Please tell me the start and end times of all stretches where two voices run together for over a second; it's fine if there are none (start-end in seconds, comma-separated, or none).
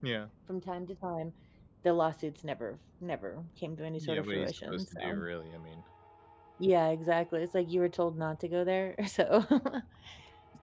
4.0-5.2